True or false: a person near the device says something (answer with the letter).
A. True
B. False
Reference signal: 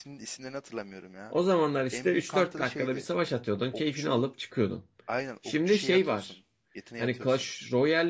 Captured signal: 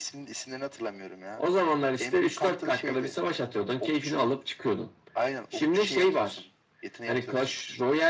B